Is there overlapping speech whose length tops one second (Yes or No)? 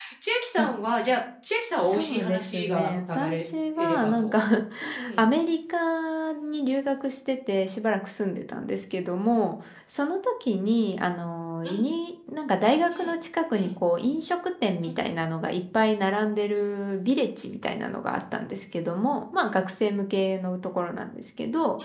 Yes